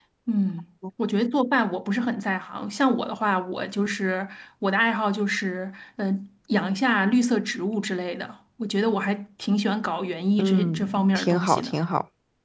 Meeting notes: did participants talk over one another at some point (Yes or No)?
Yes